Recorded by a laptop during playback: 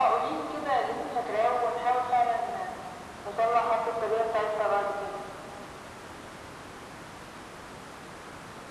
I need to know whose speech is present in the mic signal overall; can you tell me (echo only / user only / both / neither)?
echo only